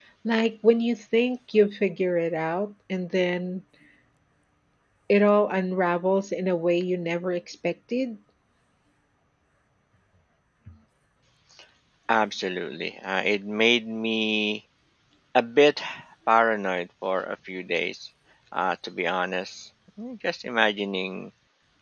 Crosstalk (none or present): none